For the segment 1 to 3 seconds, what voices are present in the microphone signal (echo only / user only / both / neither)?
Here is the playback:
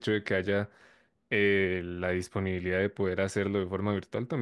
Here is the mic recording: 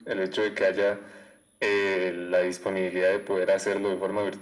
echo only